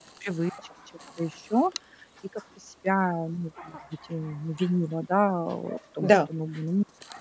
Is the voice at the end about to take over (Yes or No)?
No